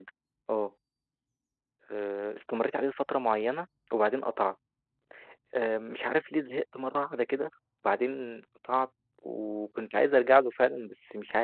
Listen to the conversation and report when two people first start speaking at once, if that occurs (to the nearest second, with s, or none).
none